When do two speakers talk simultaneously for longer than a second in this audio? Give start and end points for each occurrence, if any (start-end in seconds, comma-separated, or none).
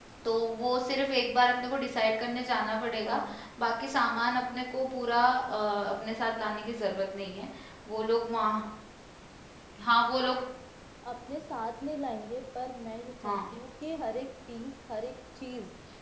none